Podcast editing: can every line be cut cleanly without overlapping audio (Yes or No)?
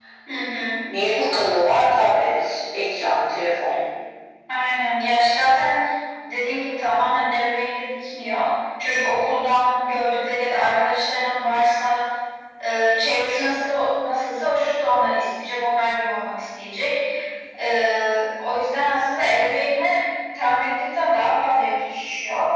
Yes